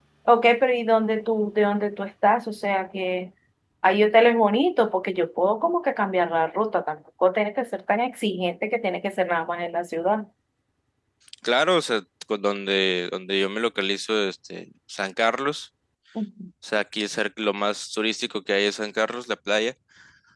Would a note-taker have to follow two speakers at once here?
No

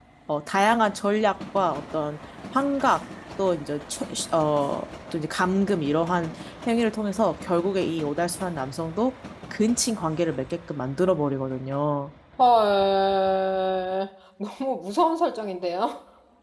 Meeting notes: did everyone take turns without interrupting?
Yes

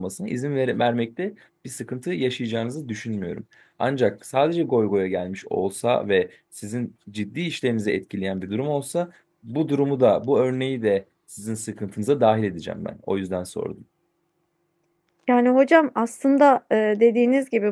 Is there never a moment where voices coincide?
Yes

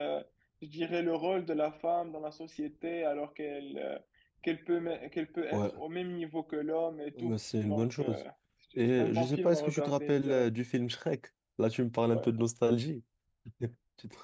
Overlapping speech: Yes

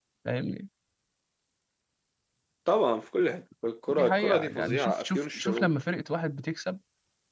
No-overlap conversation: No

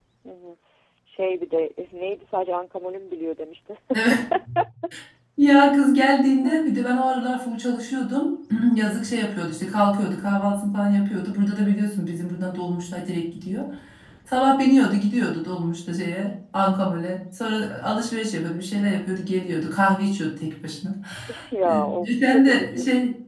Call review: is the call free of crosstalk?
No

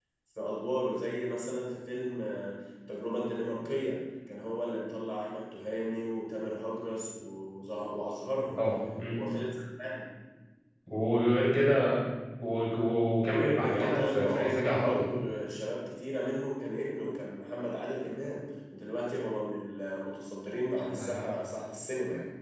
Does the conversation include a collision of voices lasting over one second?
Yes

